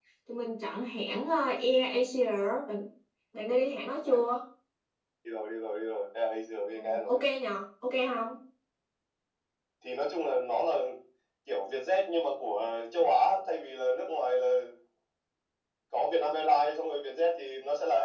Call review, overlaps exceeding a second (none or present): none